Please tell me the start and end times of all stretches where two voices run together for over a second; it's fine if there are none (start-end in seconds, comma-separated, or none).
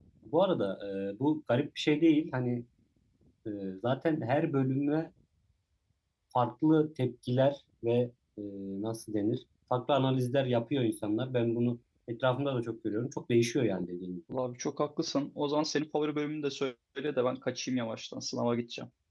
none